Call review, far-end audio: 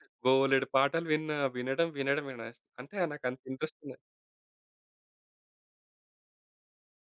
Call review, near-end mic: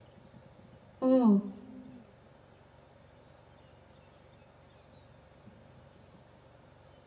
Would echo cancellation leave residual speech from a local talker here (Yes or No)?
Yes